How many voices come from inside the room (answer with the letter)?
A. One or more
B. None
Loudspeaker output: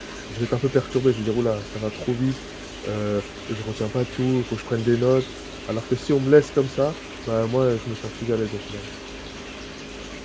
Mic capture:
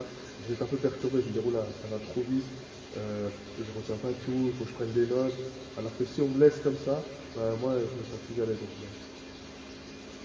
B